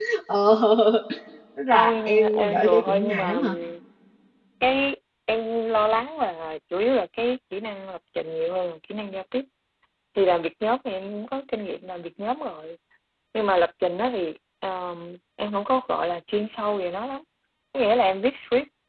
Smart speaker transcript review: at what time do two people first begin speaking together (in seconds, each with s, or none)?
1.7 s